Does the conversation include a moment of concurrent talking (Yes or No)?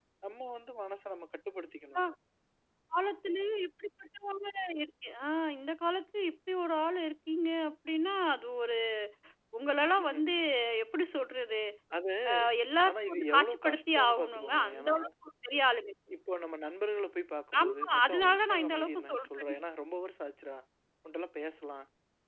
Yes